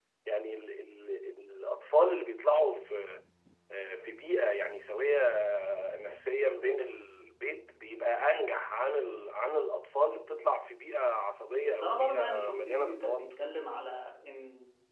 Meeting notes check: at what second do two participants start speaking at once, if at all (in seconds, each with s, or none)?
11.6 s